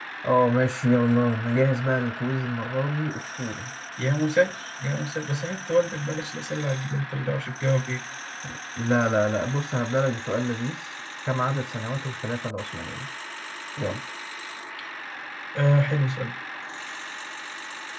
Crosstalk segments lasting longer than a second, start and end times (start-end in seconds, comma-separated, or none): none